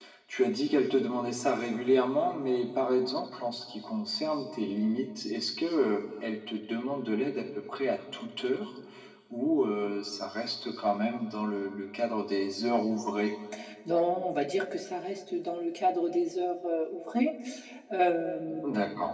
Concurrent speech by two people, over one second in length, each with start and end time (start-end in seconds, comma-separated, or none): none